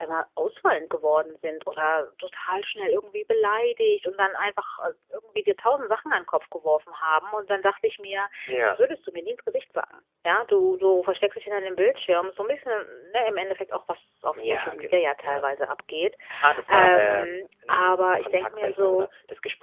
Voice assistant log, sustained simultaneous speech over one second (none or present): present